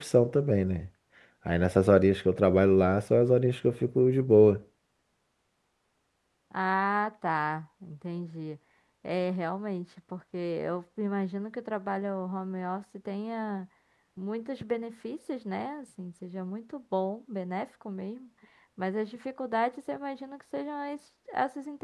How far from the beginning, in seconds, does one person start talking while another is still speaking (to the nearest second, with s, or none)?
none